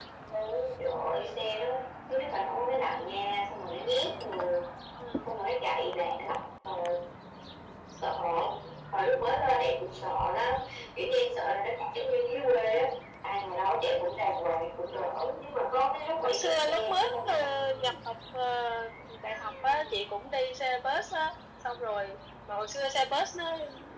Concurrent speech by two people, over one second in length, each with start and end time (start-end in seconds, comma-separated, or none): 16.2-17.4